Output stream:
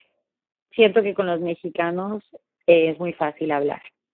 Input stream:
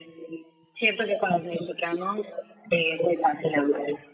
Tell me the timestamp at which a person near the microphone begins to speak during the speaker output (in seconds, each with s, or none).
none